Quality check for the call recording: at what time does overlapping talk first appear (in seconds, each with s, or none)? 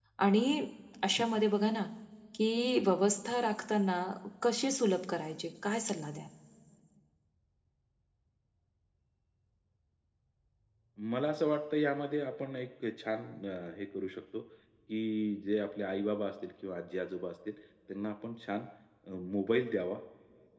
none